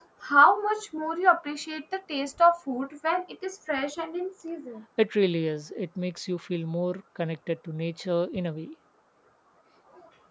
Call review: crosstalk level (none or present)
none